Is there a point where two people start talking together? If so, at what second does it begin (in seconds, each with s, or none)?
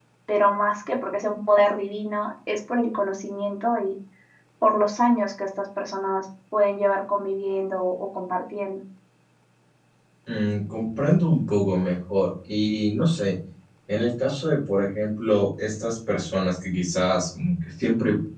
none